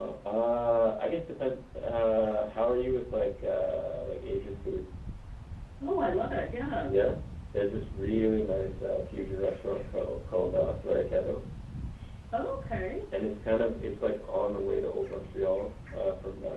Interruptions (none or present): none